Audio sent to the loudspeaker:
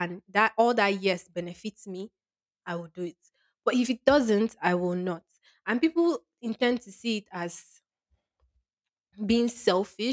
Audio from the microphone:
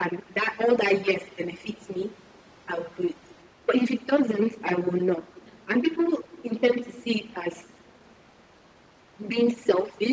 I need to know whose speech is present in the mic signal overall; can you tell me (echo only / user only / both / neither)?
echo only